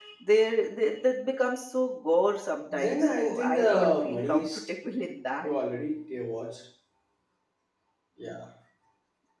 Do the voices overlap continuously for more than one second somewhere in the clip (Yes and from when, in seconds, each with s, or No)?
Yes, from 2.7 s